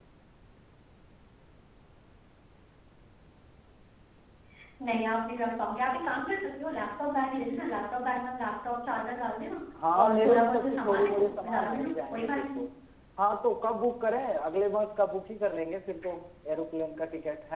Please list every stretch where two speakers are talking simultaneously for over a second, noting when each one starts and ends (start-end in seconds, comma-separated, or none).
10.0-12.6